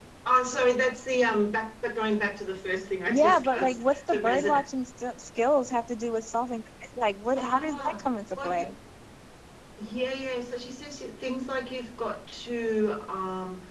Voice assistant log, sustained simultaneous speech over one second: present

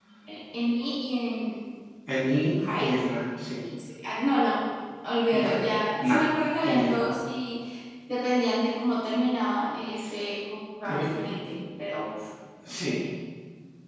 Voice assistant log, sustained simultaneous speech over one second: none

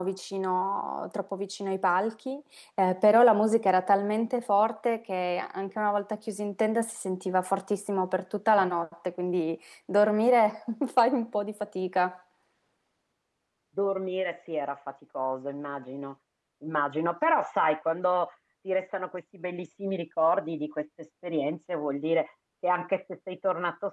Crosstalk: none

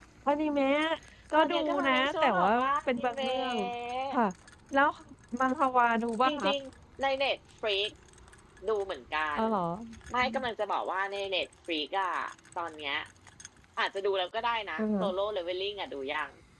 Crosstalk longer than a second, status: present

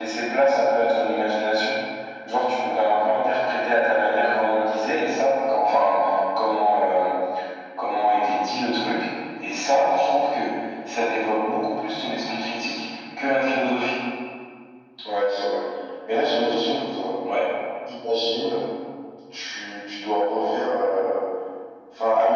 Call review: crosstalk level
none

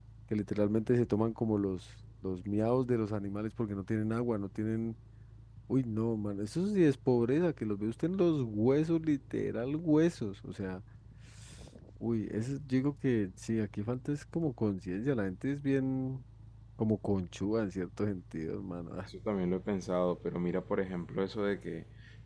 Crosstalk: none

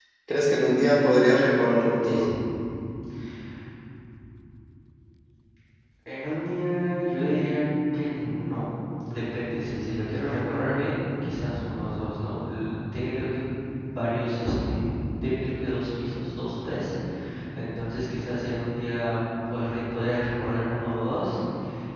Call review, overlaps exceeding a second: none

